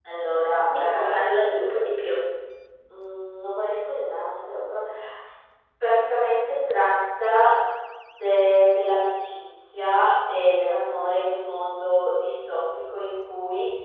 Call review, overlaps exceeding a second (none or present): none